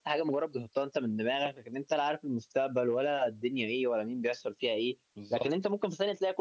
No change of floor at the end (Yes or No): Yes